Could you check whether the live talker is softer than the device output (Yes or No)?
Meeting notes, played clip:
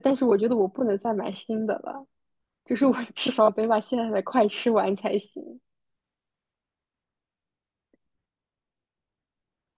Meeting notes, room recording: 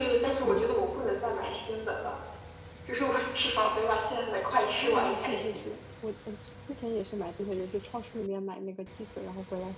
Yes